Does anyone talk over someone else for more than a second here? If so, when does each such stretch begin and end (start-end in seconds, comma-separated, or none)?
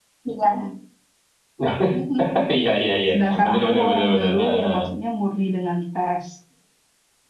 3.1-4.8